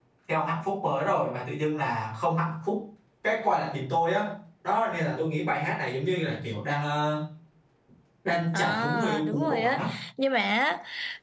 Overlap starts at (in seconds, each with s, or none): 8.5 s